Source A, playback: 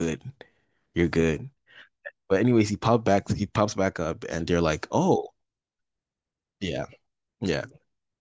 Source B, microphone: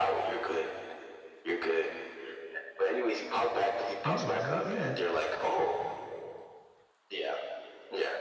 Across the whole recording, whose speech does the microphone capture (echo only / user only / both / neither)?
both